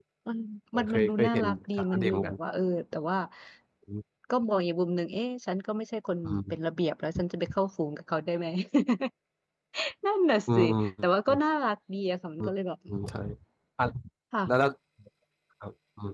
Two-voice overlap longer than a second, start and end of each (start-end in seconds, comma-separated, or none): 0.8-2.3